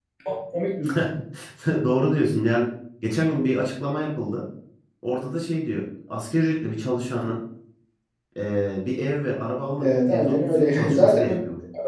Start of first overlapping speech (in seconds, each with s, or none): 9.8 s